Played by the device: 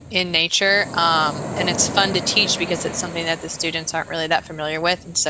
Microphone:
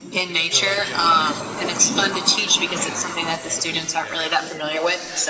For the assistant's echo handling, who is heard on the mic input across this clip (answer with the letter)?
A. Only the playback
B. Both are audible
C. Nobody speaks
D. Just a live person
B